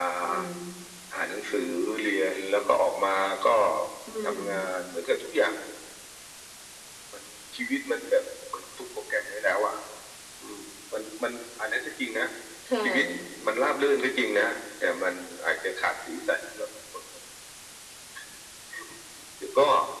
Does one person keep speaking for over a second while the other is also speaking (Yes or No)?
No